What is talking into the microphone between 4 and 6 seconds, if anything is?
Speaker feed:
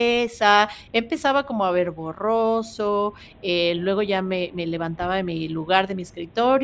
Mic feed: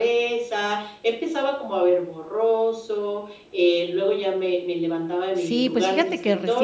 both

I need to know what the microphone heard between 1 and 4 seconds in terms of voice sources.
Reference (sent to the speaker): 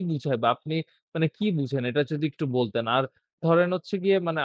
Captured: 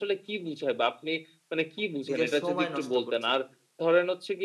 both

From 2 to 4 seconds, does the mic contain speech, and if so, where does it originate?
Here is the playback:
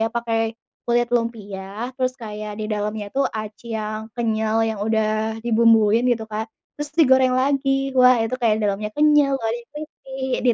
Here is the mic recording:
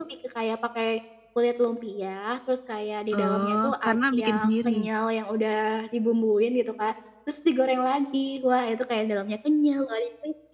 both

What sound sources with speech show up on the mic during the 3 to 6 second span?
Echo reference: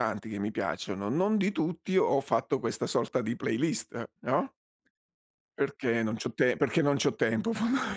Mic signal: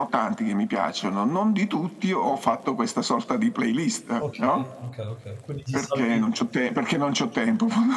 both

